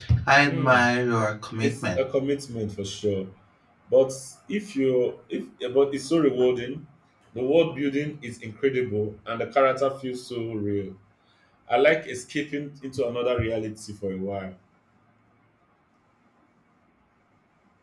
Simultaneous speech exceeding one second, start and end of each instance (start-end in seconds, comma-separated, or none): none